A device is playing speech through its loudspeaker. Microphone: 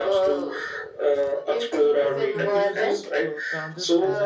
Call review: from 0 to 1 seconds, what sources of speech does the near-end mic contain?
echo only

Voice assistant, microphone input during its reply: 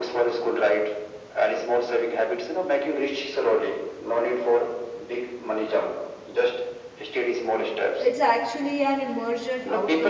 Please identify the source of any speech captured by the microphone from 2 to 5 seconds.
echo only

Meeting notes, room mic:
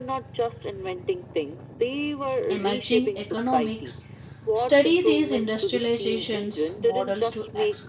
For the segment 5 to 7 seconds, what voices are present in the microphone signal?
both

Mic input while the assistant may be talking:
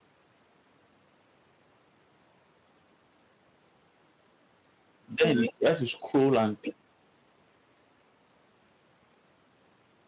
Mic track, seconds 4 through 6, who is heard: user only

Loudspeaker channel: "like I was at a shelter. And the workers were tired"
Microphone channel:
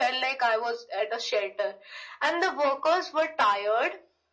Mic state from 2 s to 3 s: echo only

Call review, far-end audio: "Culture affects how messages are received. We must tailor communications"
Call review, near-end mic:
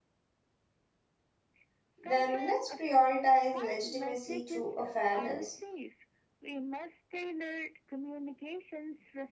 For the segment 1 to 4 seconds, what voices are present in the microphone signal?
both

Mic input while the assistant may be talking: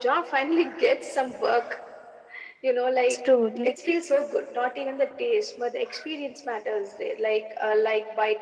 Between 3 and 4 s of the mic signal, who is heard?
both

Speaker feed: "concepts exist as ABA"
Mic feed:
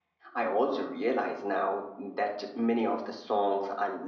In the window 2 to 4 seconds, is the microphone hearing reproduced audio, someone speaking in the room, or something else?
user only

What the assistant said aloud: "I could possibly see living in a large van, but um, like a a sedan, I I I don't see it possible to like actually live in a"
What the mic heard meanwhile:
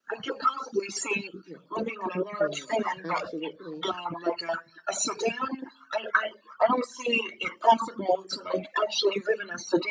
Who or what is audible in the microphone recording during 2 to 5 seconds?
both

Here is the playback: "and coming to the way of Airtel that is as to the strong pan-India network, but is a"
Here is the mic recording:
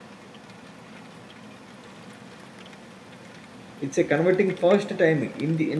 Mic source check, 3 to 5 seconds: user only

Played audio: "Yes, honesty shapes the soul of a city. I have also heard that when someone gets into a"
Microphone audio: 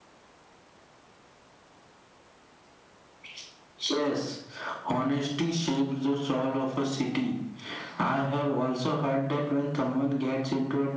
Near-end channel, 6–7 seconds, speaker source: echo only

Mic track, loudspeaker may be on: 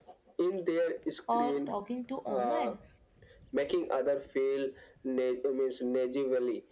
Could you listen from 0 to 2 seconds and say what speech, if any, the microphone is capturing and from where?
both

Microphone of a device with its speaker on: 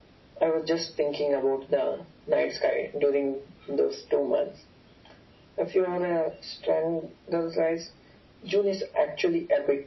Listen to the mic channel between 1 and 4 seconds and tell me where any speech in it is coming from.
echo only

